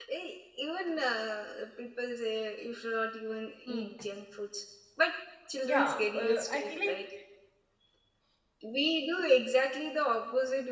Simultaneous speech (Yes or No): Yes